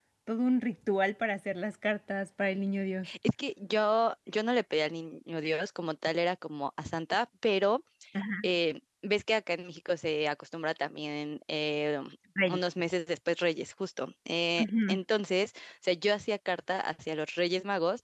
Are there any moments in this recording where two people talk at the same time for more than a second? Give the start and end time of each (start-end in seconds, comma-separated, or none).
none